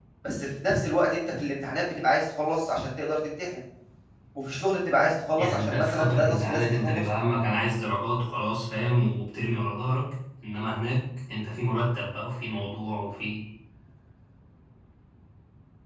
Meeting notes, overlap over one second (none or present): present